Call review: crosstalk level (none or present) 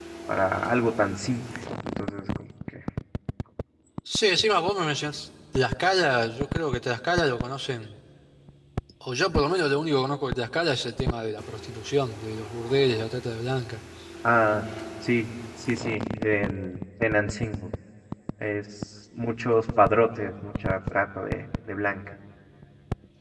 none